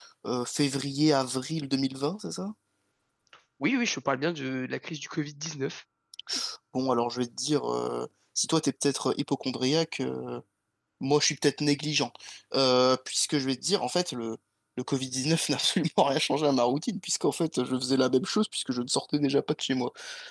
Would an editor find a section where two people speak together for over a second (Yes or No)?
No